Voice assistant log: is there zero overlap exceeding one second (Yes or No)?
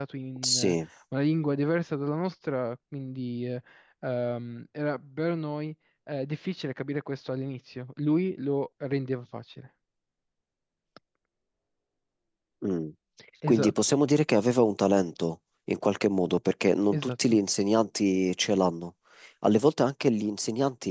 Yes